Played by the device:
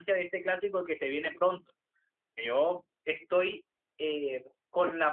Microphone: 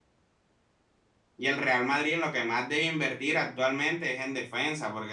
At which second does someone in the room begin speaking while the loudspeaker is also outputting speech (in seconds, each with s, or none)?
1.4 s